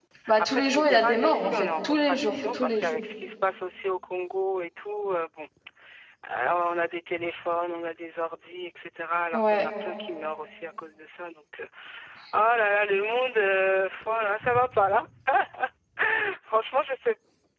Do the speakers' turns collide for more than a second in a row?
Yes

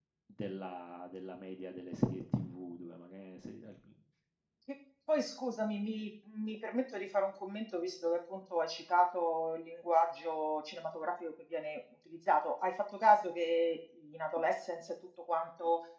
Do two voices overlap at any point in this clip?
No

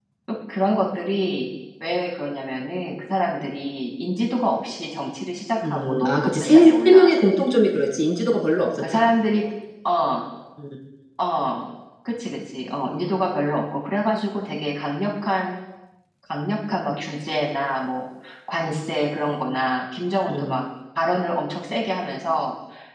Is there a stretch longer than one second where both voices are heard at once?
Yes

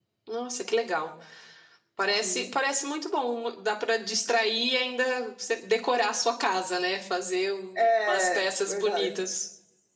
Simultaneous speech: Yes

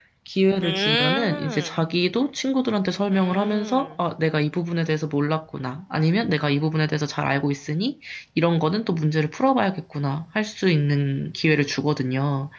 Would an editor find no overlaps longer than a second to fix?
No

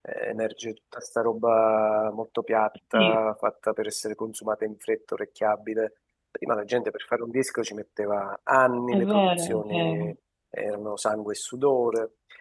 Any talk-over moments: Yes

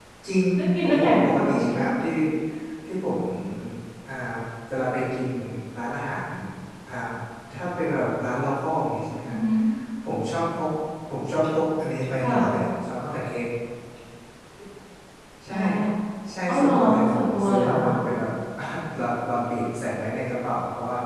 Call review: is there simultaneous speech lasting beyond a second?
Yes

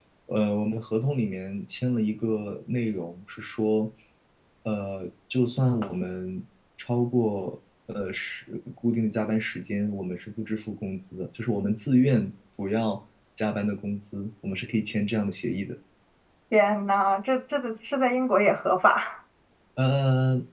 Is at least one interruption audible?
No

